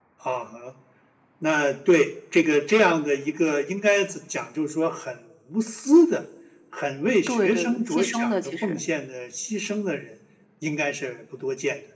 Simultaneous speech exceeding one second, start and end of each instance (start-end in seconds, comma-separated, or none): 7.3-8.8